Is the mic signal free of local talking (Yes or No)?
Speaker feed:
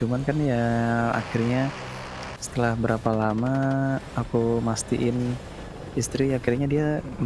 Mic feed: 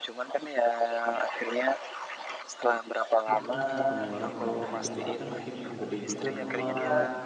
No